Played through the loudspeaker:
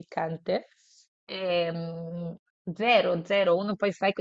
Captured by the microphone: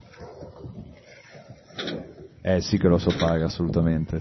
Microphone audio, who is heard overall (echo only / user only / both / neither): user only